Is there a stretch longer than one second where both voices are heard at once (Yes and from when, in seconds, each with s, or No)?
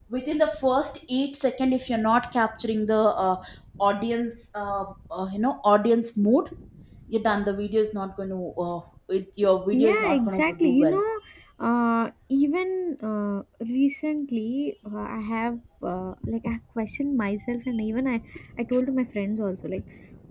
Yes, from 9.7 s